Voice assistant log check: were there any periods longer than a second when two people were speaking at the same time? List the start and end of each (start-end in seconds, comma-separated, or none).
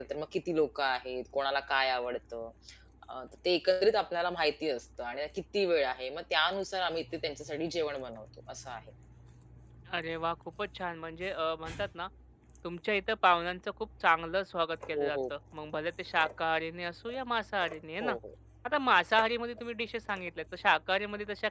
none